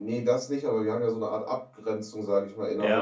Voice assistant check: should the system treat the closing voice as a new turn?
Yes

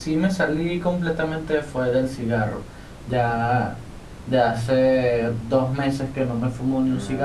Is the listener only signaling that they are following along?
No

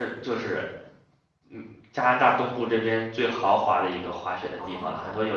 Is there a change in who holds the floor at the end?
No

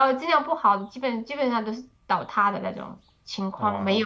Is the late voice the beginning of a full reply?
No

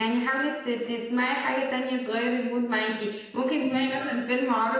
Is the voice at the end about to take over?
No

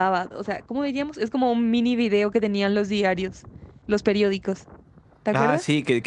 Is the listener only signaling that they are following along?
No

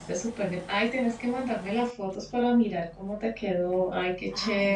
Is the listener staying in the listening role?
No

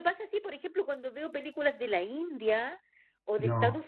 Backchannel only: Yes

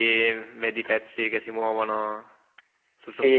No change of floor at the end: No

